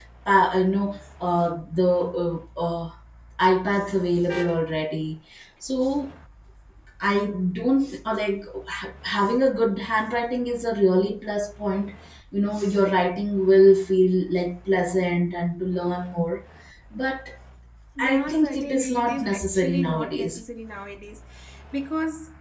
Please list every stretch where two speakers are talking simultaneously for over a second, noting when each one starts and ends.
18.0-20.4

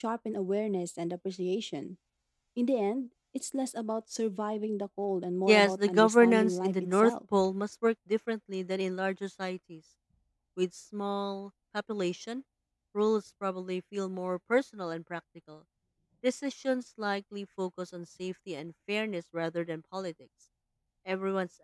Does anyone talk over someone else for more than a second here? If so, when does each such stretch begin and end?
5.5-7.1

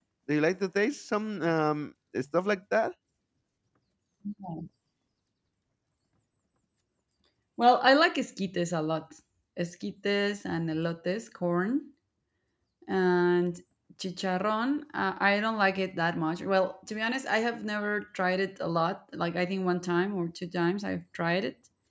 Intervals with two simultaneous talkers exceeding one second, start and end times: none

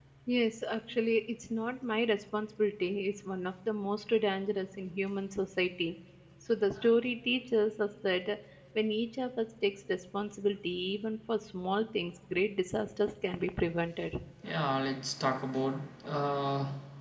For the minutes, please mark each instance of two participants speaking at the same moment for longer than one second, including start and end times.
none

